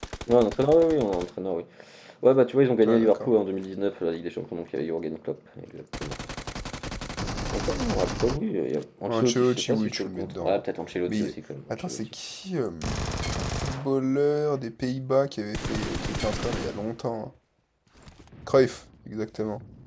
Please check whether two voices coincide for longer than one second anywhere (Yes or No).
Yes